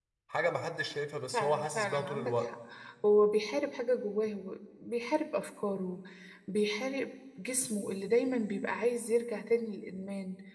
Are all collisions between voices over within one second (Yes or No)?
No